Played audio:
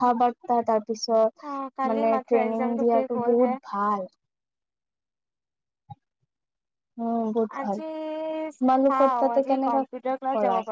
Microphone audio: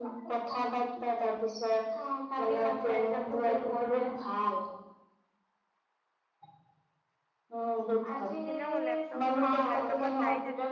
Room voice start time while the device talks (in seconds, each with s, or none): 8.5 s